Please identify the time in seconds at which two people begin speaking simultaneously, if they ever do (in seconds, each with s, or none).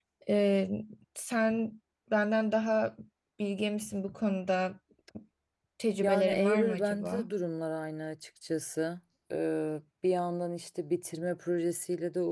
6.0 s